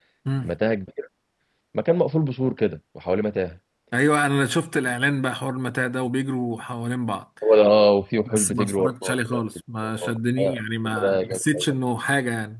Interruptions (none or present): present